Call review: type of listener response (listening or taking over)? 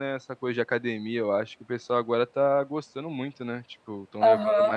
taking over